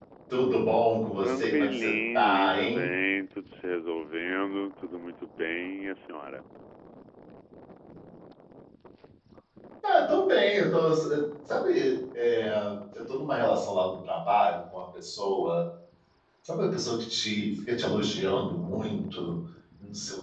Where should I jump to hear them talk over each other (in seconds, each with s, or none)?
1.2 s